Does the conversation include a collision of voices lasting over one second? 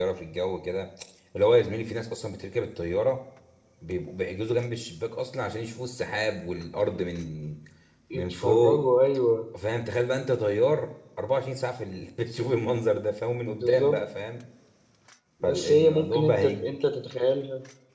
Yes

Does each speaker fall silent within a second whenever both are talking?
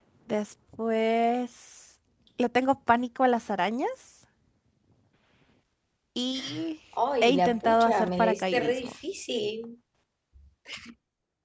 No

